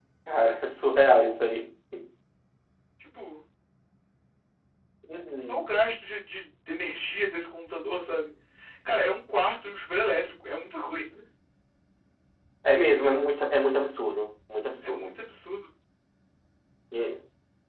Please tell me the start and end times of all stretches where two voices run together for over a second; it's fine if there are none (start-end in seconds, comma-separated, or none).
none